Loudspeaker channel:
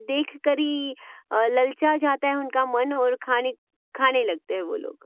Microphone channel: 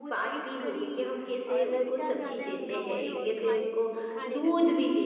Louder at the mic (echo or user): user